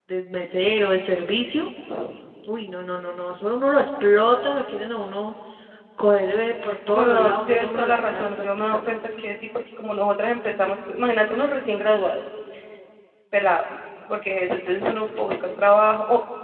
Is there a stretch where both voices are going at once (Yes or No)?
Yes